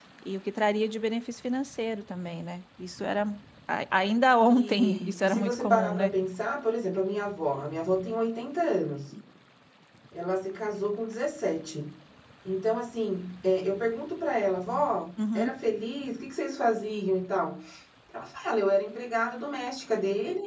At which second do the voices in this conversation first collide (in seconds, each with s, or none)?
4.4 s